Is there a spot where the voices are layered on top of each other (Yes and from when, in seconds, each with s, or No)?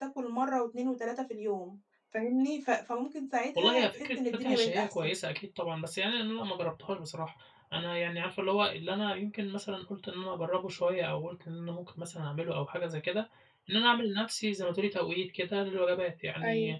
Yes, from 3.5 s